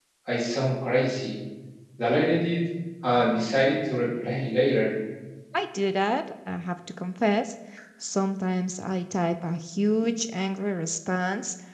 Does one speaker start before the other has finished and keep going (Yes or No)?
No